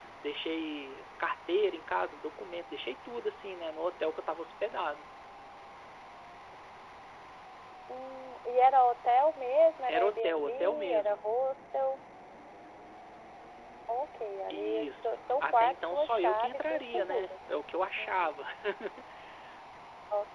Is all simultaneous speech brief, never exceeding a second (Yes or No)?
No